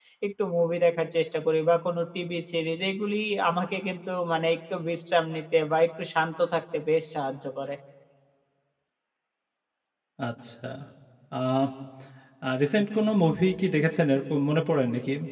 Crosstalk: none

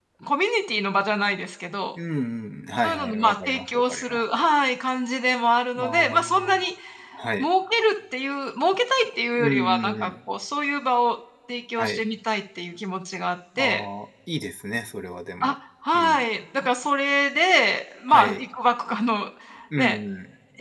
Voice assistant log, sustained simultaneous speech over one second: present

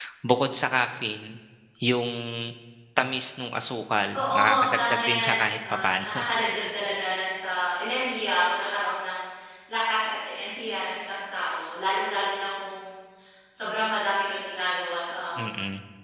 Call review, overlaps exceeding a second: present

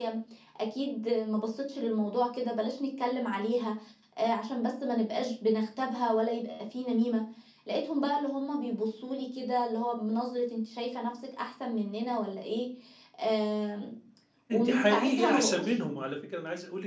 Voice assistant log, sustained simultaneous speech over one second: present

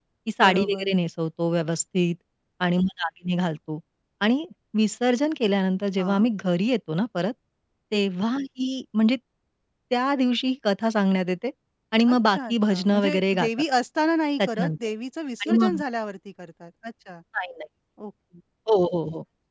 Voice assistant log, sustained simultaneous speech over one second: present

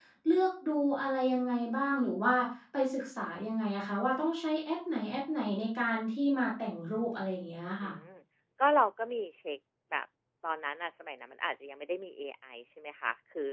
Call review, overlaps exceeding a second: none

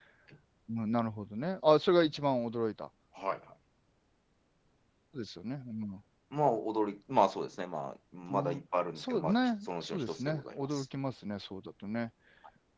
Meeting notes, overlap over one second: present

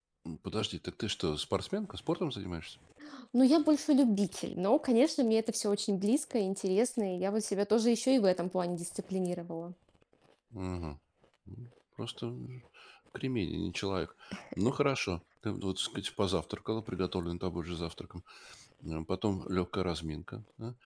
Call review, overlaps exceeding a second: none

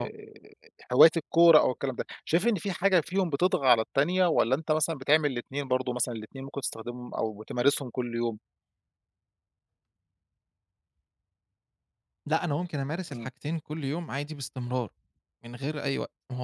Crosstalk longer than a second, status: none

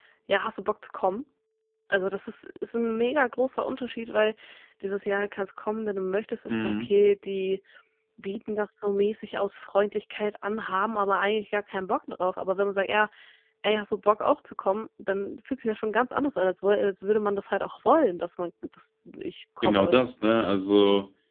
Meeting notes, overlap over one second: none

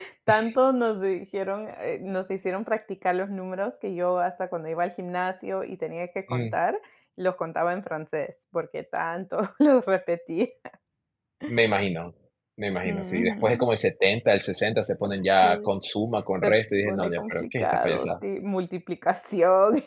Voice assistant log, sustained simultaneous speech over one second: present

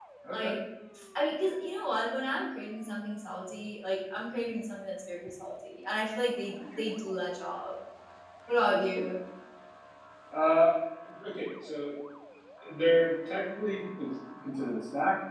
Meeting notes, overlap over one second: none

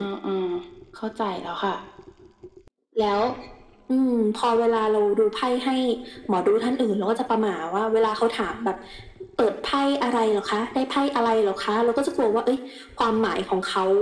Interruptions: none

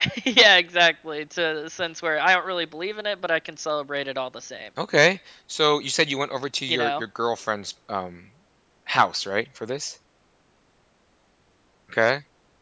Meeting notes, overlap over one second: none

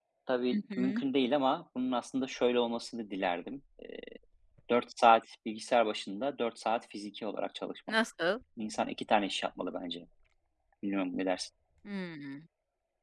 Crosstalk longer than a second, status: none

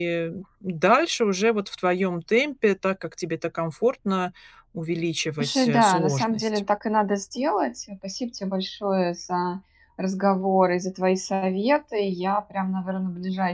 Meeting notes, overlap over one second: present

